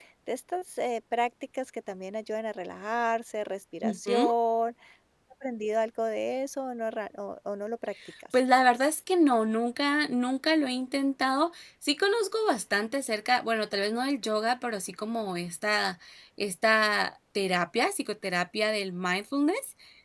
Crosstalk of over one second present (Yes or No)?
No